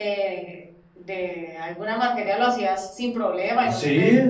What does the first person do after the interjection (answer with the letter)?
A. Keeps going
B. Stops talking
B